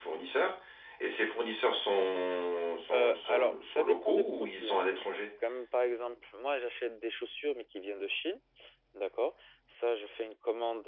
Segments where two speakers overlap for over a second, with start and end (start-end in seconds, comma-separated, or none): 2.9-4.8